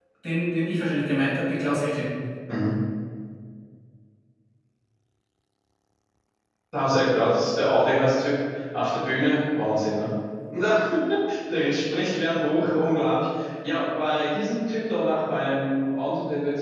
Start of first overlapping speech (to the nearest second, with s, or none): none